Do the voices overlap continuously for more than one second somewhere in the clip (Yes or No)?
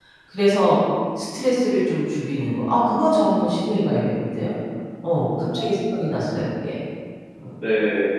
No